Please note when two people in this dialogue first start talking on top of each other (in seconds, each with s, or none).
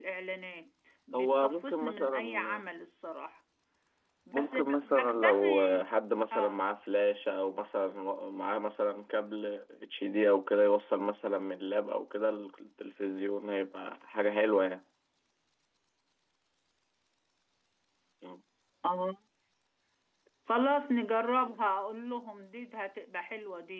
1.1 s